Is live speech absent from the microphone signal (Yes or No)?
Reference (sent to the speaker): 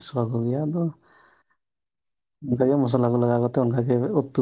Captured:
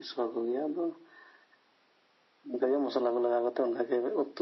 Yes